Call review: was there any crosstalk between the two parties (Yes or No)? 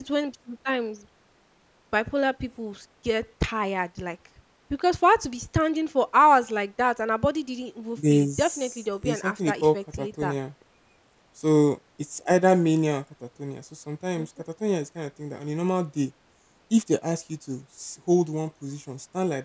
Yes